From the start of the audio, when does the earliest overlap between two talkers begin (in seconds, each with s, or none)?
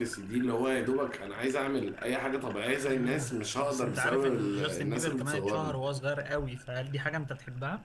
2.9 s